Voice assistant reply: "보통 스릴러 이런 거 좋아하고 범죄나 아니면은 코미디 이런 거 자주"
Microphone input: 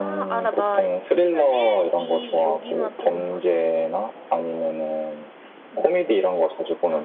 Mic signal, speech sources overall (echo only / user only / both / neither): both